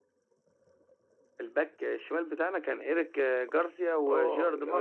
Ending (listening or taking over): taking over